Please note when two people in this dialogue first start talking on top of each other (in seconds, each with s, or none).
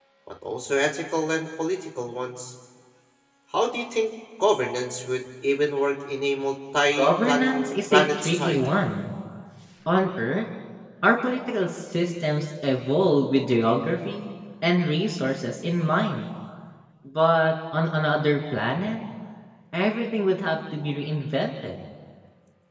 7.0 s